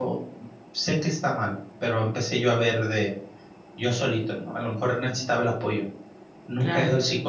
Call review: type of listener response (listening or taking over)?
listening